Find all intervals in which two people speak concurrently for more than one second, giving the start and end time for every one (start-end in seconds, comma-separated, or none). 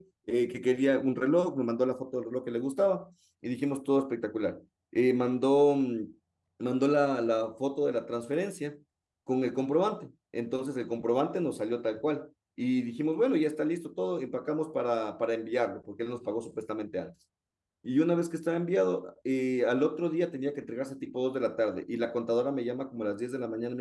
none